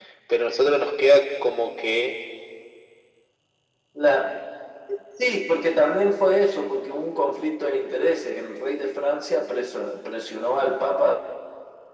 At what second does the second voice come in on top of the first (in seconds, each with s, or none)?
none